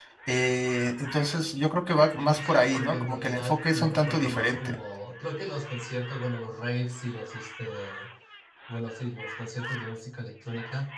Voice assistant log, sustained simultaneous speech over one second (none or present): present